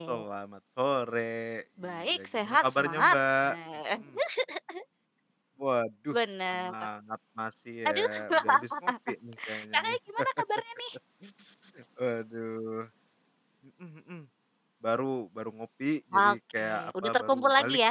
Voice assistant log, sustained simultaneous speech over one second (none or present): present